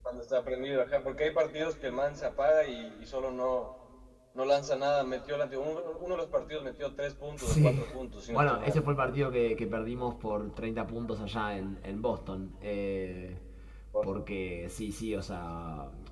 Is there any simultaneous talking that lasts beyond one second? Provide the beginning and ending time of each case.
none

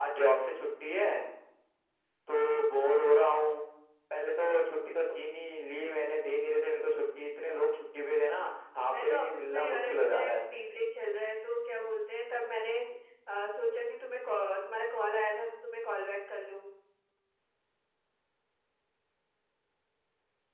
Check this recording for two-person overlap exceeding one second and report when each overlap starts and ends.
8.9-10.3

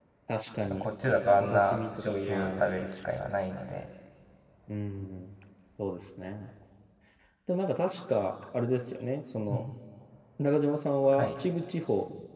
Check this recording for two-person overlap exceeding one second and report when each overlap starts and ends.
1.4-2.6

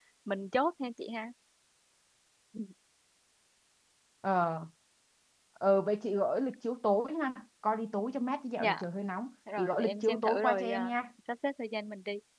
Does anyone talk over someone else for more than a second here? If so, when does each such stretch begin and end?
9.6-10.9

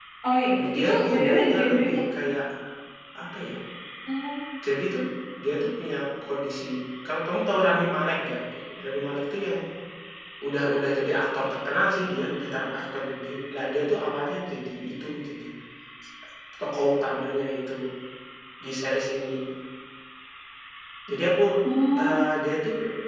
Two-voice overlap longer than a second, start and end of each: 0.7-2.0

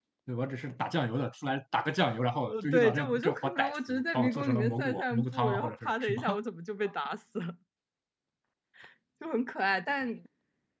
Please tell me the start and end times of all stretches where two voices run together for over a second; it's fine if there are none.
2.5-6.2

